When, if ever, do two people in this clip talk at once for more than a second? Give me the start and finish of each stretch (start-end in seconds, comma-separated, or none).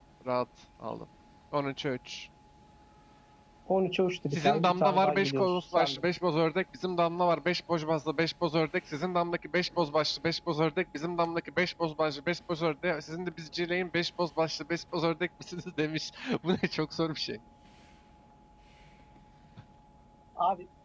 4.3-6.0